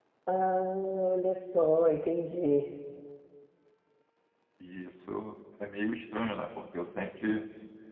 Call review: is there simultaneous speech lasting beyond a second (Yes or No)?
No